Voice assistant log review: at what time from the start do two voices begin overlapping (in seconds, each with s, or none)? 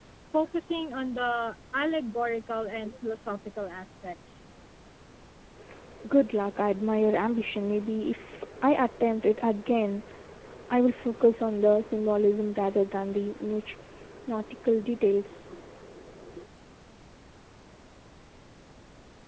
none